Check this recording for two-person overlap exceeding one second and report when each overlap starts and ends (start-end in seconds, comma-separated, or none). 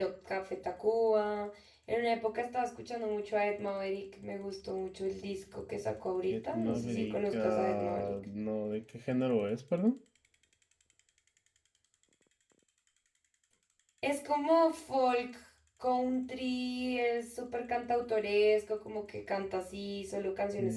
6.3-8.1